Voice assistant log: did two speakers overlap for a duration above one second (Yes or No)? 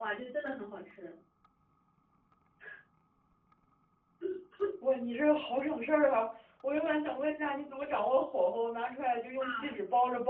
No